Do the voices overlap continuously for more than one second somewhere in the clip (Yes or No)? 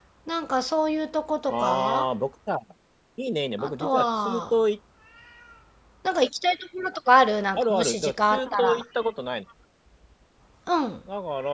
Yes